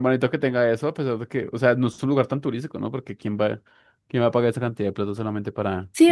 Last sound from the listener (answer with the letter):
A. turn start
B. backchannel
A